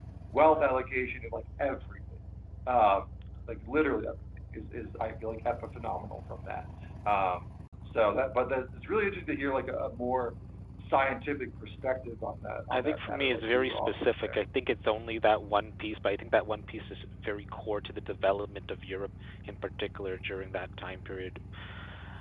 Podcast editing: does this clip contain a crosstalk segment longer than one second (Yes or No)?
Yes